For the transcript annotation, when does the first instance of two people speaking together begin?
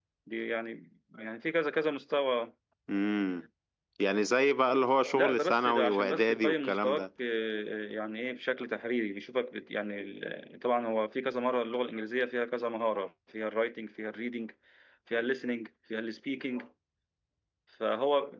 5.1 s

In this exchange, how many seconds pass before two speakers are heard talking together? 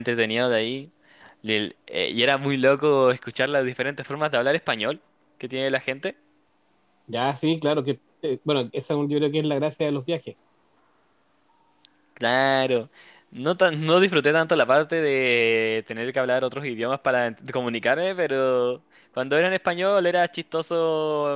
none

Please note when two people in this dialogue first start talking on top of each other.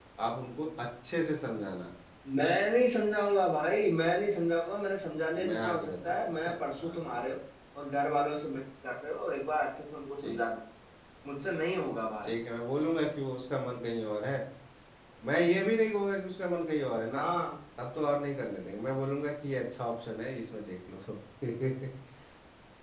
5.3 s

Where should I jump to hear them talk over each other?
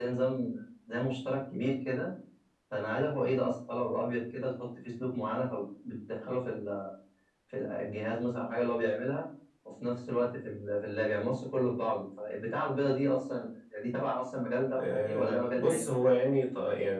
14.7 s

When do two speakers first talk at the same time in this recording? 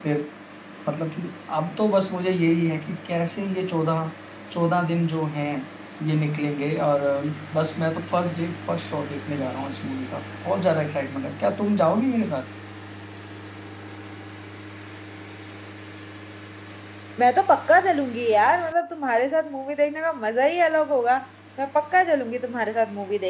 none

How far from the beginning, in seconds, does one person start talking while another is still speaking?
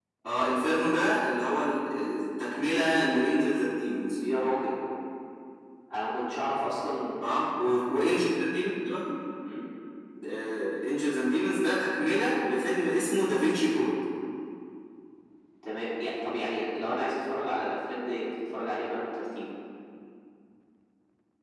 none

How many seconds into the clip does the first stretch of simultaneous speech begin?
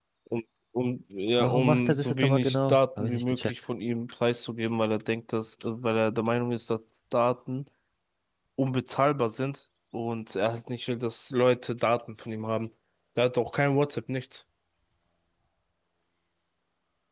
1.4 s

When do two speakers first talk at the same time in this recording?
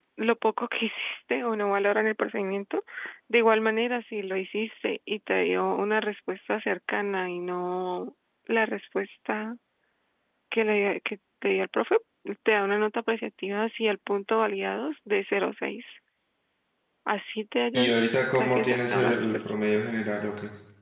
17.7 s

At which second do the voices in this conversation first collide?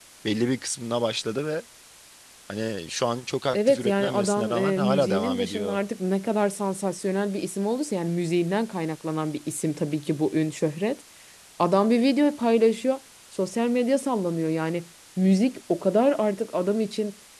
3.5 s

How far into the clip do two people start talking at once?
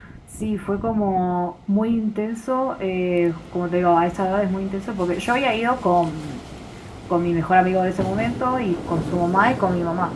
none

